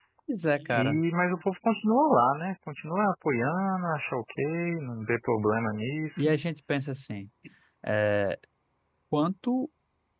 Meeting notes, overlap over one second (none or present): none